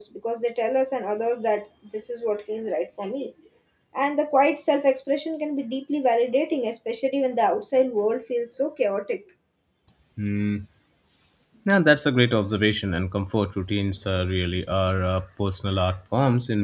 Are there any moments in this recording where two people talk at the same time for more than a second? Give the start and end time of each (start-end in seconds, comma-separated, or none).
none